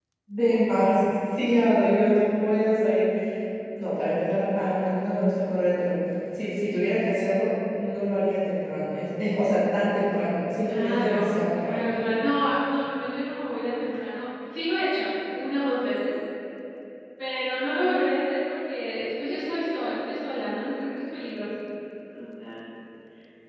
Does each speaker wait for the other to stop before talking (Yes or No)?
No